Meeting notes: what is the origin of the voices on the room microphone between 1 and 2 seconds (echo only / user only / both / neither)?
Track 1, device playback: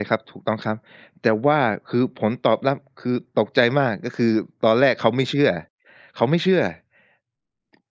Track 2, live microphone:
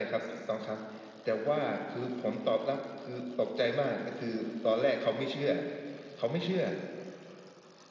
echo only